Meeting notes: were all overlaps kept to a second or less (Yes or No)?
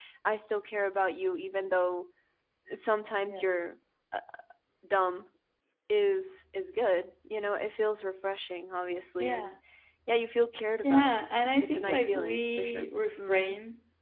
No